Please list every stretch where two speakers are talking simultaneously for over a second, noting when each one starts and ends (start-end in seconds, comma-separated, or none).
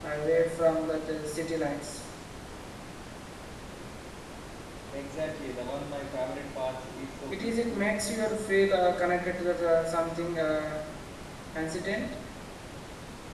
none